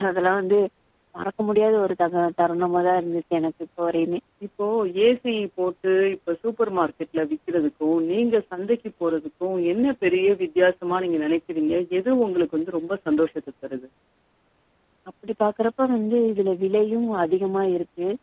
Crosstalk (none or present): none